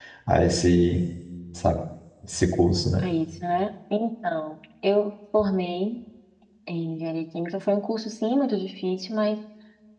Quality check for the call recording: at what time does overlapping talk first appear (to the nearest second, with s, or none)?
none